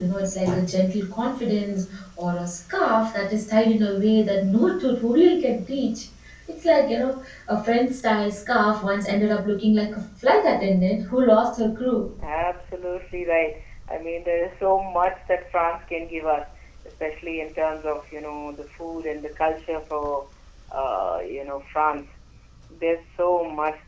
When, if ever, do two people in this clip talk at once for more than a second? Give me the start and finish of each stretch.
none

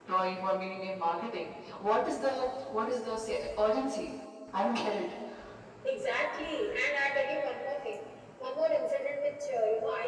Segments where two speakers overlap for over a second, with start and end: none

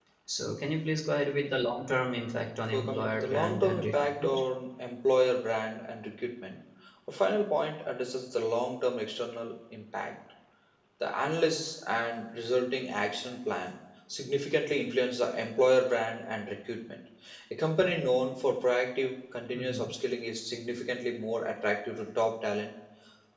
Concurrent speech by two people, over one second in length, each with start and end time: 2.7-4.4

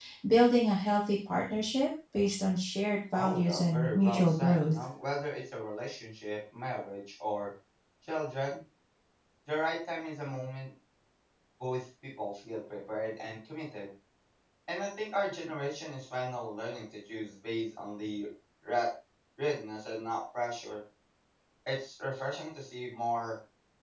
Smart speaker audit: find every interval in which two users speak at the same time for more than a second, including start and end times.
3.1-4.8

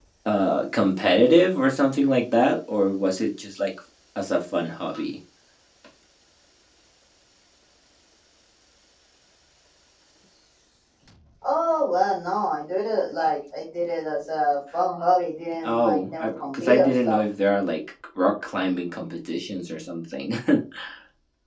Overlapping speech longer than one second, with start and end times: 15.6-17.2

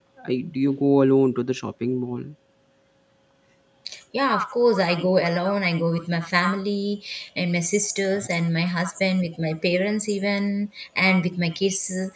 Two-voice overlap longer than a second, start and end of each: none

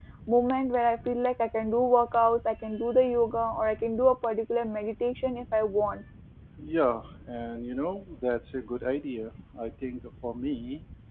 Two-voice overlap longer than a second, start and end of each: none

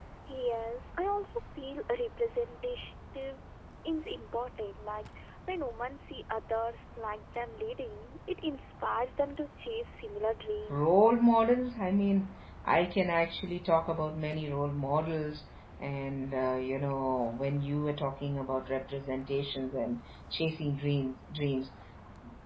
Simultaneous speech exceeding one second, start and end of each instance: none

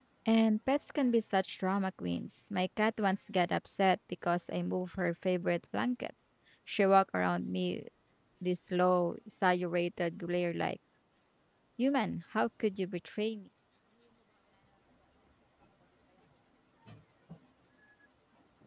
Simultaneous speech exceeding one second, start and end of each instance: none

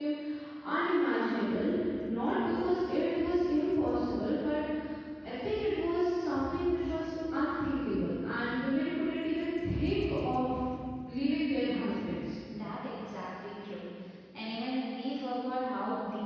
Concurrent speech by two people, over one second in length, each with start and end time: none

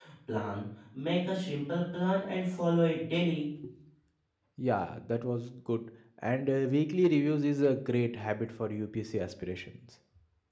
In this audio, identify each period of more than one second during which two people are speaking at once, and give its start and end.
none

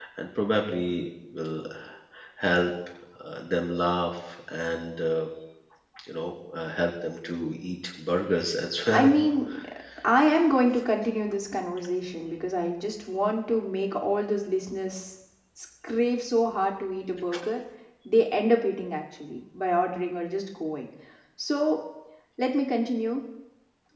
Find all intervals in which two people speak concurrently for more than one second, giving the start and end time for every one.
none

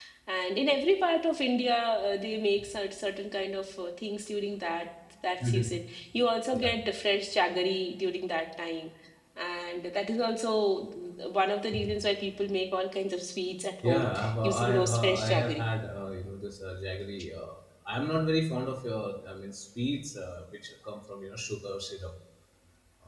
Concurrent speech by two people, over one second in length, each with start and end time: 13.8-15.6

